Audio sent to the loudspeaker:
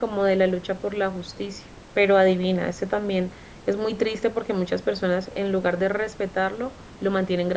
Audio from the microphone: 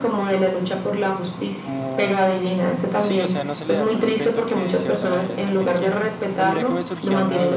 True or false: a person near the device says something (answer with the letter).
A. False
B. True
B